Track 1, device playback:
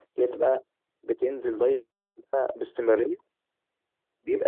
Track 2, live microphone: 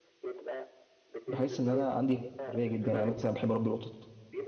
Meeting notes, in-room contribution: present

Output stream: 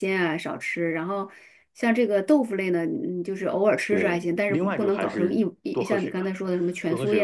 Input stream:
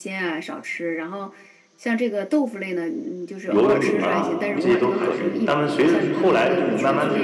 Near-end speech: present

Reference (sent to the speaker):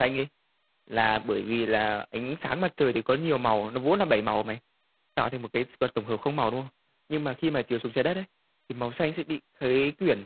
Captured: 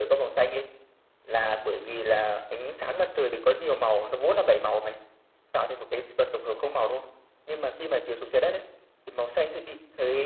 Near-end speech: none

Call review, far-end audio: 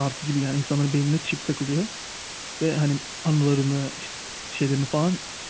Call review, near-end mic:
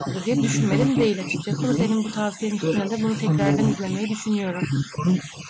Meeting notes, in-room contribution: present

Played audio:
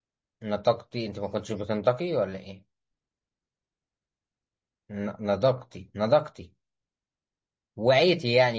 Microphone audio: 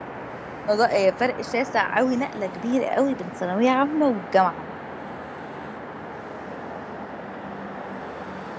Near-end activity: present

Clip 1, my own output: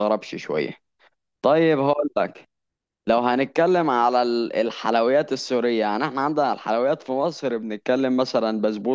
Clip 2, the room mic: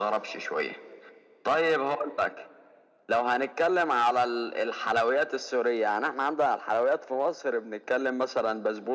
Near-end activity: none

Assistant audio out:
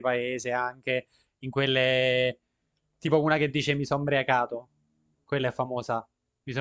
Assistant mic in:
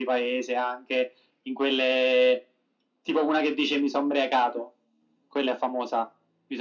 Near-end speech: none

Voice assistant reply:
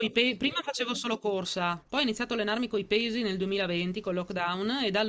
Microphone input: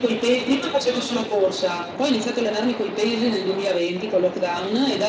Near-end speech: none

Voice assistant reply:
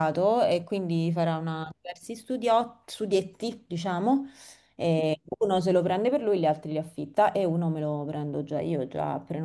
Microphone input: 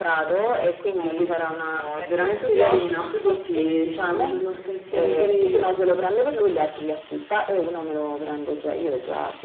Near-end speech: present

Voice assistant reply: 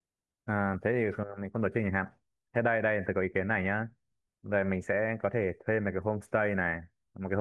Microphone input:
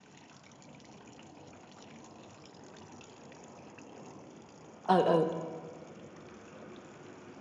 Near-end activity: present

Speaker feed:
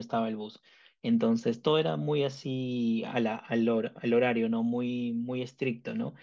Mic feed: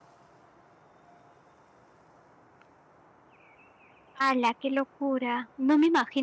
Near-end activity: present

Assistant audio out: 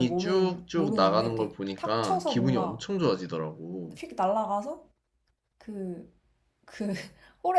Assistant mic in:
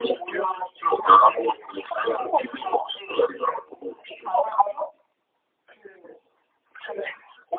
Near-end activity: none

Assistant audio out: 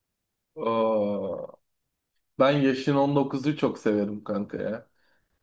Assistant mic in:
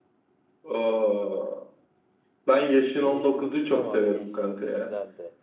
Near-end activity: present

